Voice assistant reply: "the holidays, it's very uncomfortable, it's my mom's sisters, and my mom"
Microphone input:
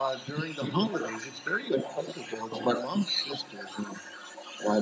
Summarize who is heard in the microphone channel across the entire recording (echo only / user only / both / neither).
echo only